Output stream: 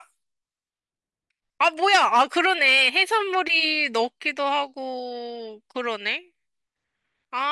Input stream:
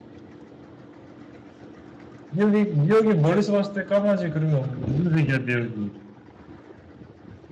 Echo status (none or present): none